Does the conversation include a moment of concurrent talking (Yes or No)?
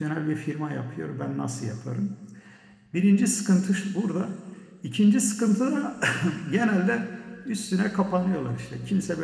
No